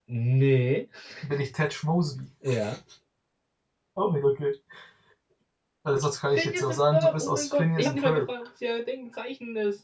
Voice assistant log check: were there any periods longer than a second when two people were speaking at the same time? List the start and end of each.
6.3-8.3

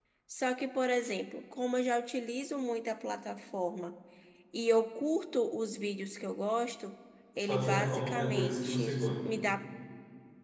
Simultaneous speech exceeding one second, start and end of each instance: 7.4-9.1

